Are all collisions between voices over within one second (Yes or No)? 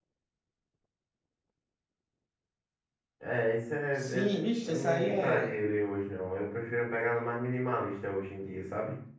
No